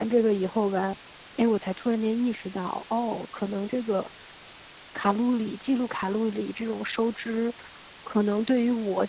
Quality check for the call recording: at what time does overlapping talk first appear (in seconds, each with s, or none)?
none